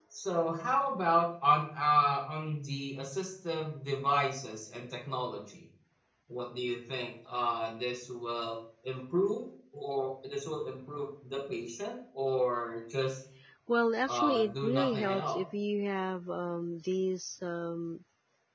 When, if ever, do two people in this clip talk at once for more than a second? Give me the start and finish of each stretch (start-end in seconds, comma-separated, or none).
14.1-15.4